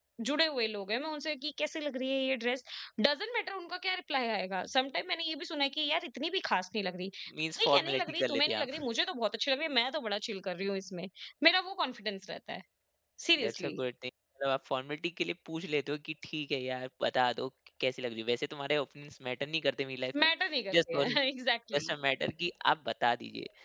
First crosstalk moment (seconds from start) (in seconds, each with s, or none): 7.6 s